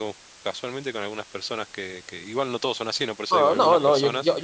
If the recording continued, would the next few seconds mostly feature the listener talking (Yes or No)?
Yes